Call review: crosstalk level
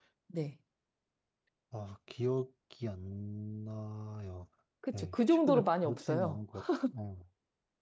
present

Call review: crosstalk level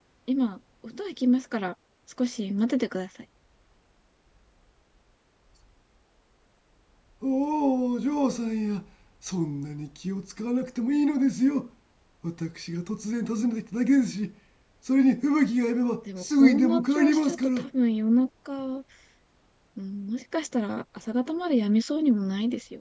present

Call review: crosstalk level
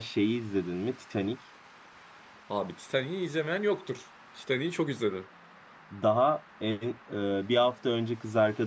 none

